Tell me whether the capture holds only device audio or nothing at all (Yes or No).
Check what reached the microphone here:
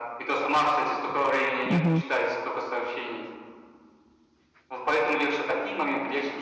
No